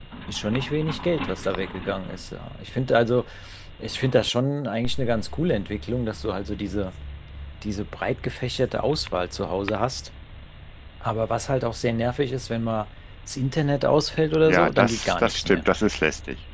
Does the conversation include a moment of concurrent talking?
Yes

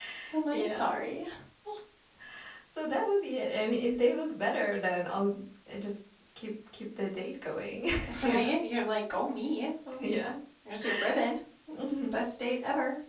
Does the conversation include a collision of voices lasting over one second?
No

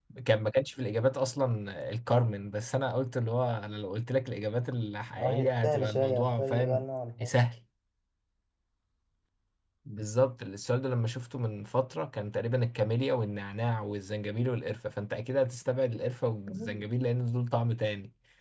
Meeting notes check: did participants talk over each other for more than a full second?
Yes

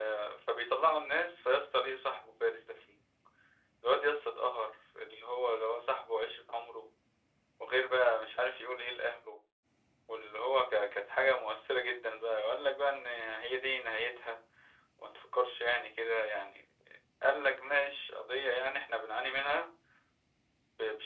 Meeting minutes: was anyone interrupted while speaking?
No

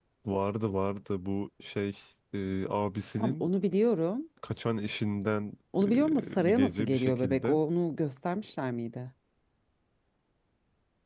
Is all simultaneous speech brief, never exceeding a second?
No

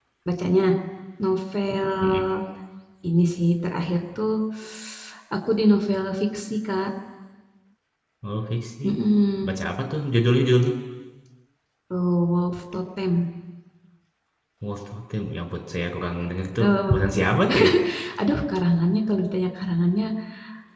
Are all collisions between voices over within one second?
Yes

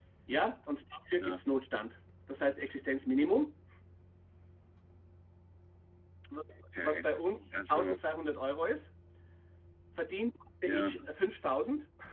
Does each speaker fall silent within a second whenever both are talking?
Yes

